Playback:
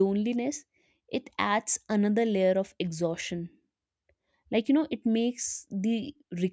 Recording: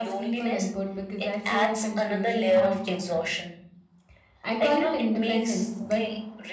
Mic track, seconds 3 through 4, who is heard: both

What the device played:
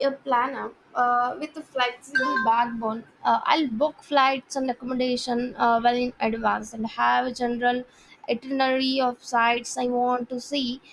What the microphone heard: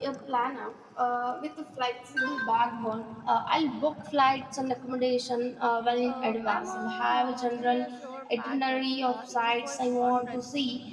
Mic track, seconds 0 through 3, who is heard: echo only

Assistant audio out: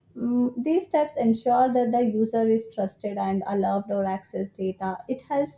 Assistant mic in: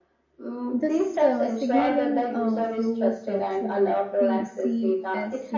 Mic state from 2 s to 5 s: both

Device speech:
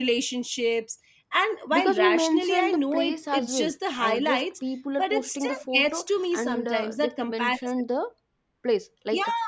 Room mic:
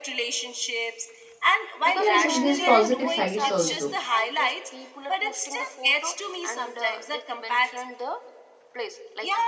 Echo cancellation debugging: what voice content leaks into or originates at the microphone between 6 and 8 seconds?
echo only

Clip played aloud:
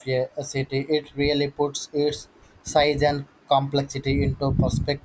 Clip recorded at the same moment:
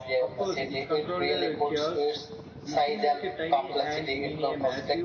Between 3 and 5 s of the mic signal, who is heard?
both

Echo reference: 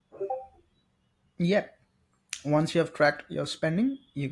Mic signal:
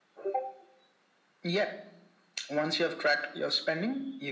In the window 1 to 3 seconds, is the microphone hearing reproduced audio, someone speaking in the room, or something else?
echo only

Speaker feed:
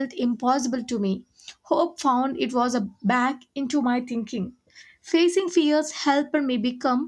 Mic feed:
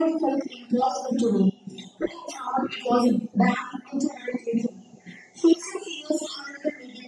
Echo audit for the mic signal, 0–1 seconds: echo only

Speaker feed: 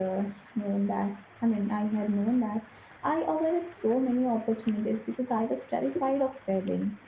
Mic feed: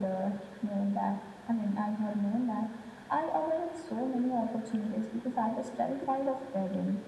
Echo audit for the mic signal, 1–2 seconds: echo only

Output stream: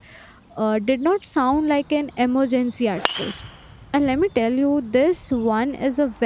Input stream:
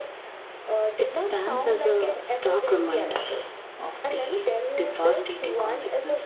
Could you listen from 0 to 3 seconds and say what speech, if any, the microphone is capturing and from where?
both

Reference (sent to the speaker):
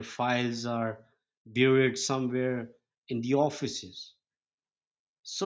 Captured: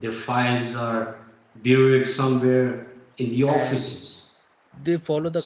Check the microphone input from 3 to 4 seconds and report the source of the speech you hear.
both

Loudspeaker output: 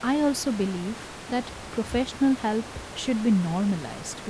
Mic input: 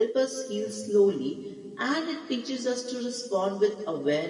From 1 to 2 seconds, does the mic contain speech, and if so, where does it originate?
user only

